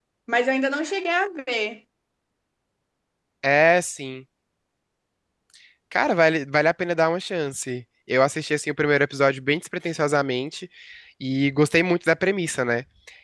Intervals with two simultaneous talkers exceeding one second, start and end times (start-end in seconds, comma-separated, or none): none